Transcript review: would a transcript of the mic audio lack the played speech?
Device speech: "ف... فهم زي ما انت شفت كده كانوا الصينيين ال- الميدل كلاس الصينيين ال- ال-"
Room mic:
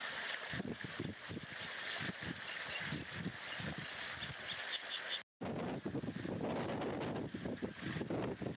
Yes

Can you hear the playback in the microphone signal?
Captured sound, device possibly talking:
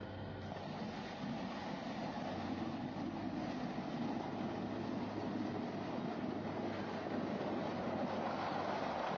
No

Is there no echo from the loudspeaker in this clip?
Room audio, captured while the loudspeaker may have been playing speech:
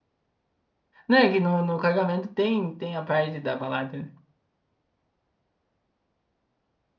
Yes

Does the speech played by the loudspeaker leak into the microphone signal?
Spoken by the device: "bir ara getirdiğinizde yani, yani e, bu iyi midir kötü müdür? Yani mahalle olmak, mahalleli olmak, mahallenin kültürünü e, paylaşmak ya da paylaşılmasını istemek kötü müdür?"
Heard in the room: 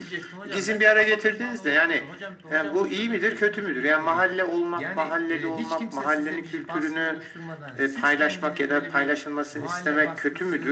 Yes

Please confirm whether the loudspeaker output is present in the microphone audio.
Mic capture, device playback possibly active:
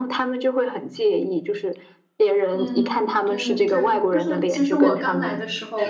Yes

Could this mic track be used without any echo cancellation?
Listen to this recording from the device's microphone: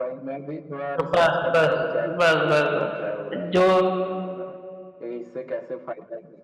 No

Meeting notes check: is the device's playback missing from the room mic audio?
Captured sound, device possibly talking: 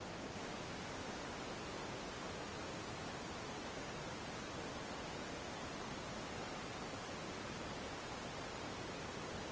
Yes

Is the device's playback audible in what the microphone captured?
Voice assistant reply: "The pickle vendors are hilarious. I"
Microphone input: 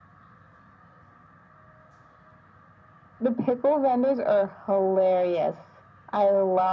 Yes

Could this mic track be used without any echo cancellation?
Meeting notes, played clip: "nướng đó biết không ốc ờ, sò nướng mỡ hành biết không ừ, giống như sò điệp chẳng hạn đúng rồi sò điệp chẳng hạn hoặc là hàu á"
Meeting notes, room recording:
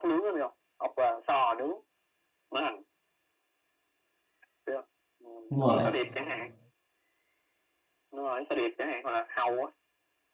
No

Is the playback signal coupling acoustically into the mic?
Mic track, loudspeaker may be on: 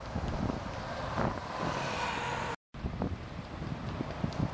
No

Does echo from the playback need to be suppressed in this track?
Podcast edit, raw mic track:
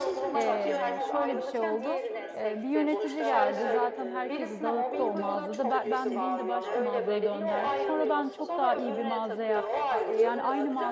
Yes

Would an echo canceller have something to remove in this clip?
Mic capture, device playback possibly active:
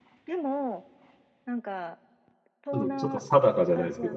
Yes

